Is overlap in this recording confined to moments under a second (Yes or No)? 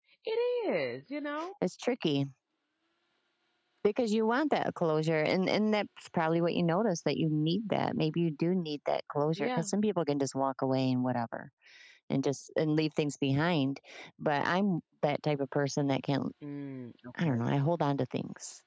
Yes